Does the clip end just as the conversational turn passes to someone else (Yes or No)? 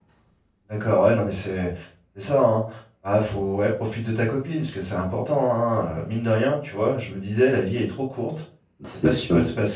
No